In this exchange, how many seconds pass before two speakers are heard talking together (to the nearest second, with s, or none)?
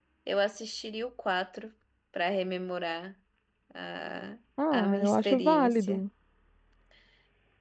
5 s